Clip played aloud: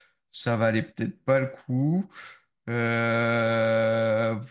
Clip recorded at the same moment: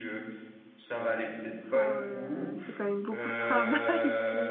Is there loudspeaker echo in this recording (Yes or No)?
Yes